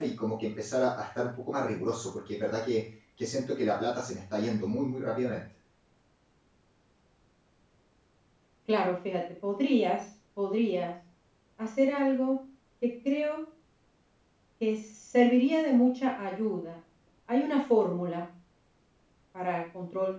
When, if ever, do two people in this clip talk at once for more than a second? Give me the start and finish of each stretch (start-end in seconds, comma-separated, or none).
none